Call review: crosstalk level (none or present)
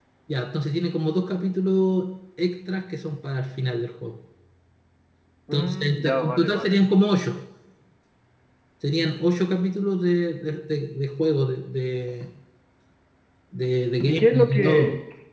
present